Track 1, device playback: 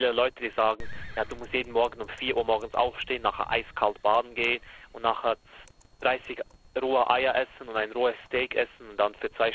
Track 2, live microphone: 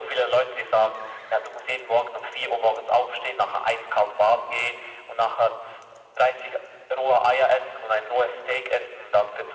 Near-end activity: none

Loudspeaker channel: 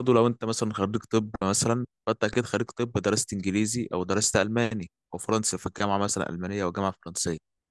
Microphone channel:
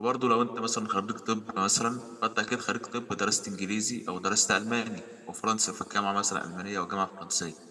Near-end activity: none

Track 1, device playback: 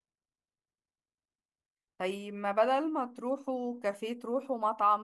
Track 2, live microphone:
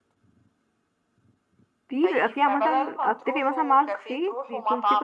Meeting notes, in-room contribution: present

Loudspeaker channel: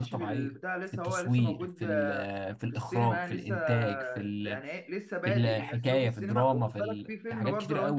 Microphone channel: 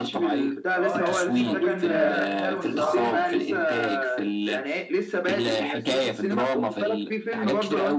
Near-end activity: present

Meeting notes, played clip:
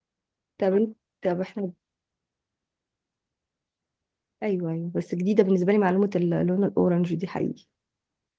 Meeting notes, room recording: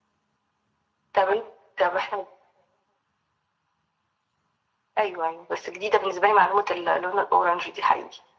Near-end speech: none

